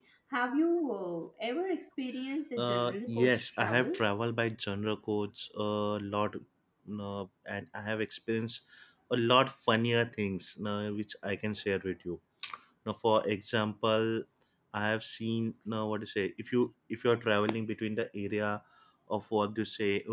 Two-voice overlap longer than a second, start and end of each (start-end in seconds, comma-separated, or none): 2.6-4.0